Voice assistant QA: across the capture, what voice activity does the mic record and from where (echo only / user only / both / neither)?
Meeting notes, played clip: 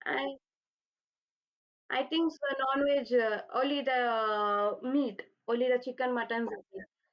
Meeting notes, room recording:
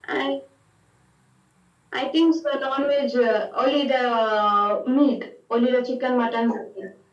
echo only